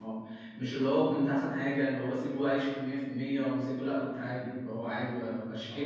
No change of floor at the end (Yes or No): No